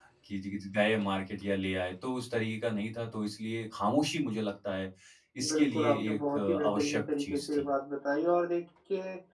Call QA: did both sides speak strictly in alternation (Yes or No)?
No